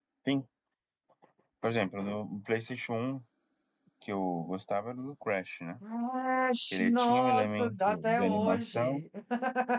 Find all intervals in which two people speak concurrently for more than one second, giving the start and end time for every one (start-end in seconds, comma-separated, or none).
6.9-9.0